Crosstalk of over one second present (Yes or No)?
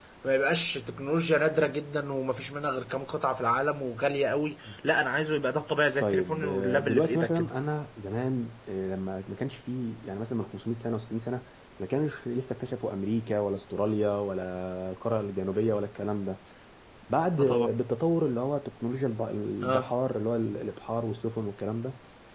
Yes